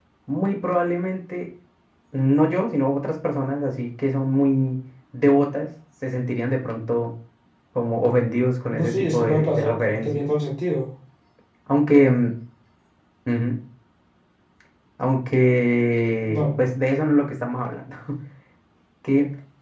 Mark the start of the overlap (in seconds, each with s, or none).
8.8 s